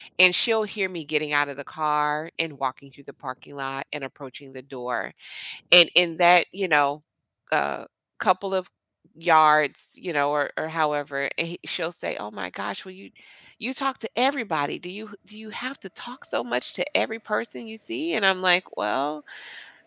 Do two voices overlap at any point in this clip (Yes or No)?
No